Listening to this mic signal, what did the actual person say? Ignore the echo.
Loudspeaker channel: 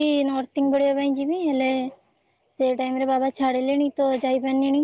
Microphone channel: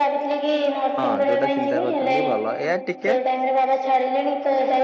ହଁ ଯୋଉଟା ଚିନ୍ତା କରୁଛନ୍ତି ଭଲ ଏୟା ଟିକେ

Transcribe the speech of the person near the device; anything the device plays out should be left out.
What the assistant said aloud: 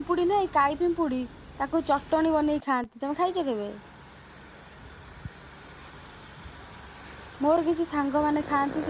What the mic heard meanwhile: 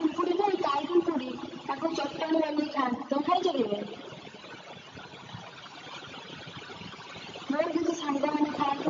none

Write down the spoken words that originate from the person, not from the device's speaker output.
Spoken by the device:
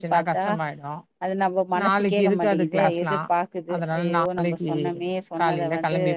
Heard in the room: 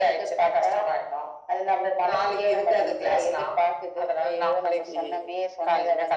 none

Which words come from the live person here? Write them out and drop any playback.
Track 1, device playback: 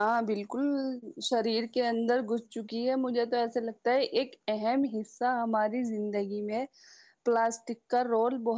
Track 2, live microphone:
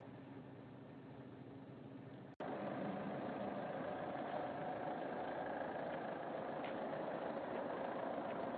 none

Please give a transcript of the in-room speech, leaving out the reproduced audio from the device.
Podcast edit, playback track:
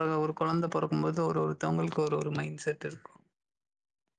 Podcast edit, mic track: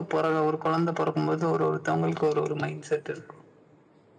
none

